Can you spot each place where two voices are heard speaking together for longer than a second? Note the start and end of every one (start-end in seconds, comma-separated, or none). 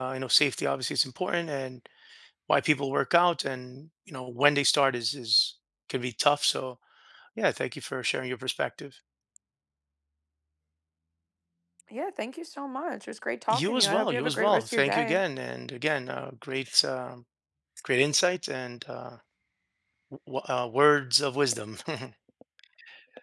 13.5-15.2